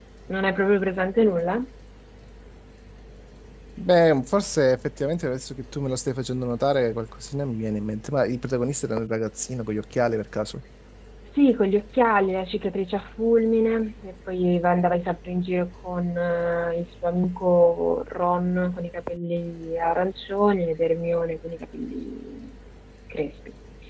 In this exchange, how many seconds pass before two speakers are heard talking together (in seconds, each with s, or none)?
none